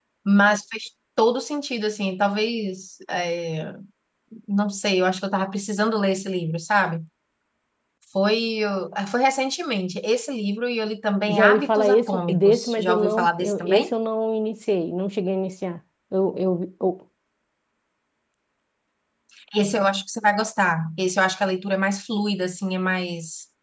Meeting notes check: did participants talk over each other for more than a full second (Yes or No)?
Yes